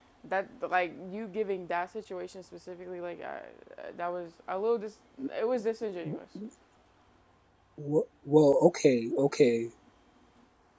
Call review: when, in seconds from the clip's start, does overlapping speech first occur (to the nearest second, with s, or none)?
none